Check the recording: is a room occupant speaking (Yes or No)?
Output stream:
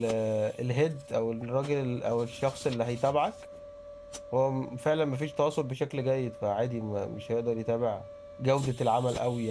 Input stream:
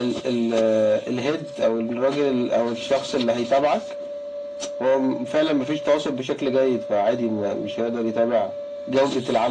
No